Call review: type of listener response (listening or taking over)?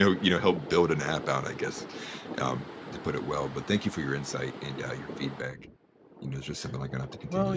taking over